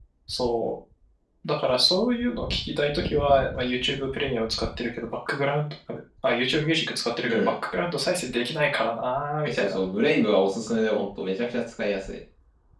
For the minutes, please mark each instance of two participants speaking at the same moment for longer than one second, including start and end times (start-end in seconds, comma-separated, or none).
none